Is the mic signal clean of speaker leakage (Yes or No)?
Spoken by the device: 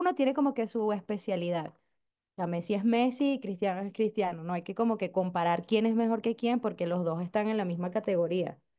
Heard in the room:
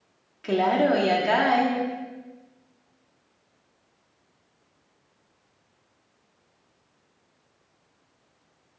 Yes